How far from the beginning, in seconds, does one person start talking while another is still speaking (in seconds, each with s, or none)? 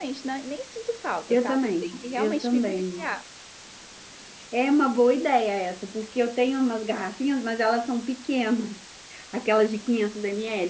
1.3 s